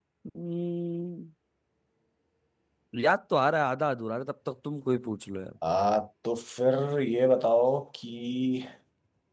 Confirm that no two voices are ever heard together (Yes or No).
Yes